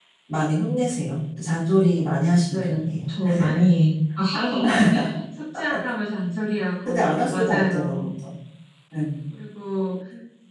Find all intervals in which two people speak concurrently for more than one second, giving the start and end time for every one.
6.8-8.1

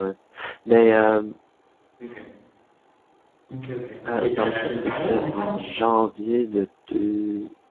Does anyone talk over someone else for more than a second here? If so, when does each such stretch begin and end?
4.2-5.6

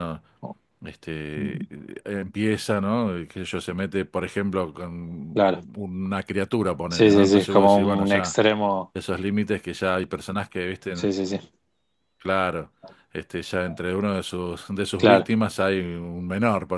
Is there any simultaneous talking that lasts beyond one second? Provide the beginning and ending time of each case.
6.9-8.3

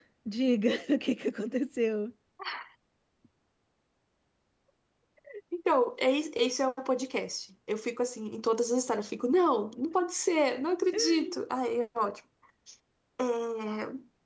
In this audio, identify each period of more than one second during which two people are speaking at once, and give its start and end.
none

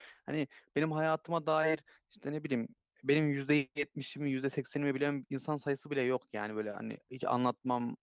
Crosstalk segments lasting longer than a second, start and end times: none

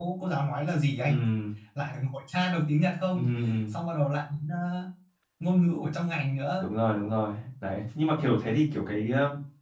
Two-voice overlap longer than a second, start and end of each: none

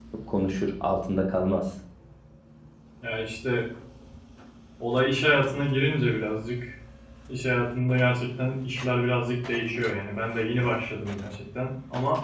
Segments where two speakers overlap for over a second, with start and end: none

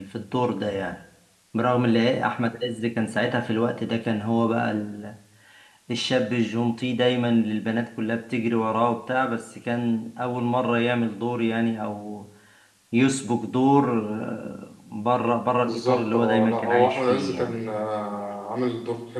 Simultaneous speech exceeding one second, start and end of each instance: 15.6-17.6

